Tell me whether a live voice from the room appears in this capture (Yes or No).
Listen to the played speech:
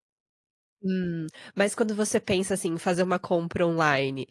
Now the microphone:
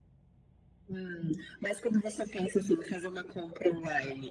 No